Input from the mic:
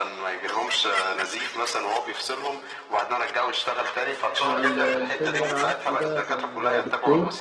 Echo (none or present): present